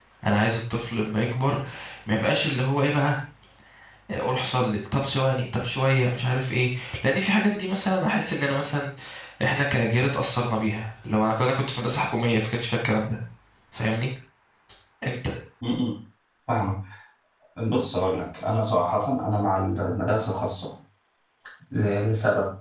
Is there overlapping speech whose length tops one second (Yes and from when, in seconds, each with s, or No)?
No